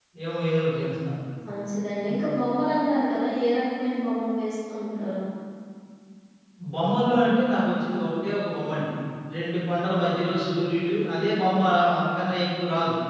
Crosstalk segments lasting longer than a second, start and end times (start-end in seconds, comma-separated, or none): none